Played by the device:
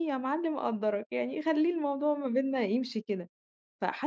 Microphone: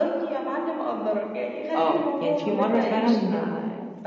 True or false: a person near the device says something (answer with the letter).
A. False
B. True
B